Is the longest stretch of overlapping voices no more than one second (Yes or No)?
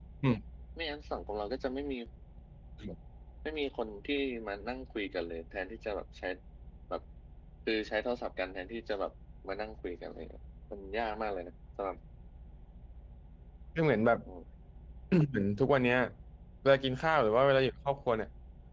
Yes